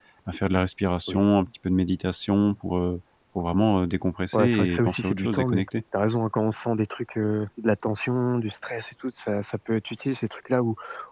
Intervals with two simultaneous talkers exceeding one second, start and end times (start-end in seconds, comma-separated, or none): 4.3-5.7